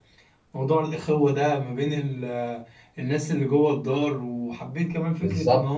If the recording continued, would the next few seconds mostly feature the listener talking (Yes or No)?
No